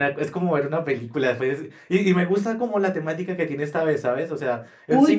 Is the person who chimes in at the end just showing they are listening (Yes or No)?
No